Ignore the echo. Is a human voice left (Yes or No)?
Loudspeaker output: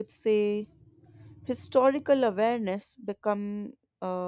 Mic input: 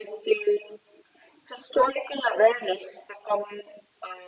No